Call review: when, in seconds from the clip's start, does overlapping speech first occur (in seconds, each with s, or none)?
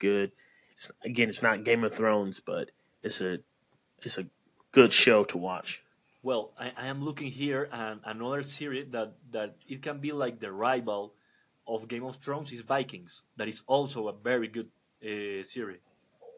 none